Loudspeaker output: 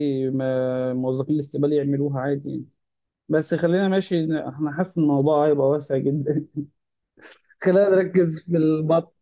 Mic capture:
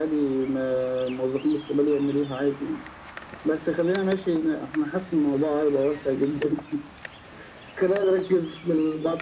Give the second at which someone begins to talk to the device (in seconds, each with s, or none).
none